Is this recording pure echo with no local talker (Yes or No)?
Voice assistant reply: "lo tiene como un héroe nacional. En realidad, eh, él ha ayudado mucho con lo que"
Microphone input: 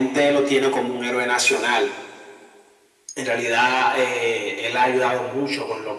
Yes